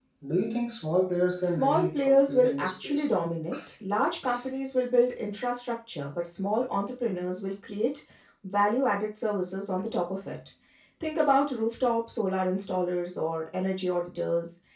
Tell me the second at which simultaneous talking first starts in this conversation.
1 s

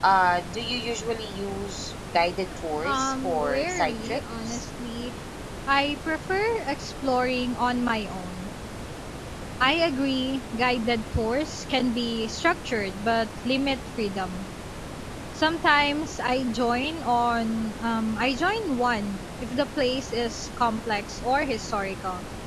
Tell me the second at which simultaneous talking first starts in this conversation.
3 s

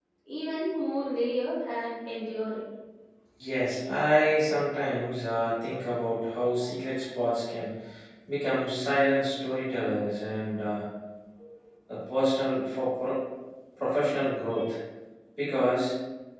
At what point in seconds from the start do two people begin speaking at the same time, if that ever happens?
none

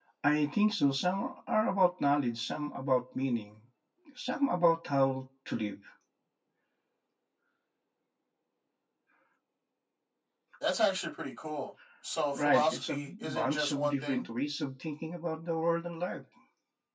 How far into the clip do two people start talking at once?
12 s

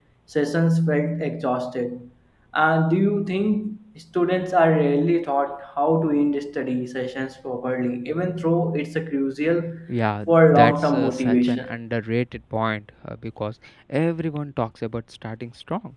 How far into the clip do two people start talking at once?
10 s

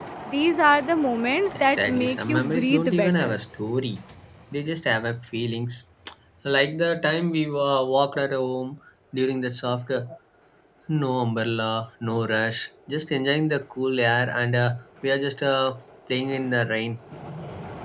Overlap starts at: 2 s

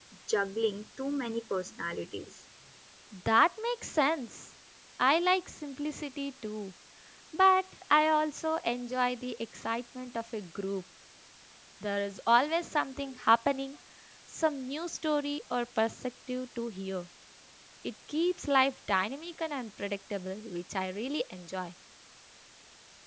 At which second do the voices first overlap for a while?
none

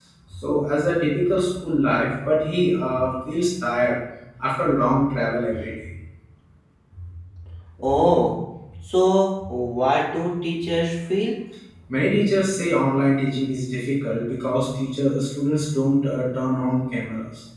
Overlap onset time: none

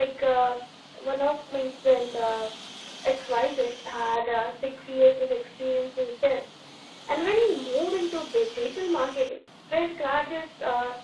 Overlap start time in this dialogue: none

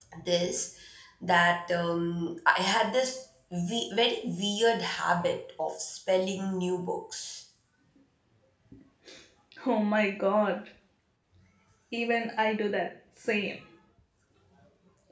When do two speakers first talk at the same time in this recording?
none

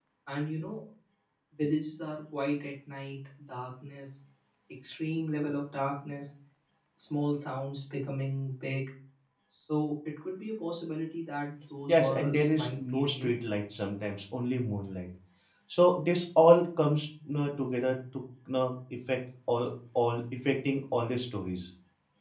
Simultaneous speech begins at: 12 s

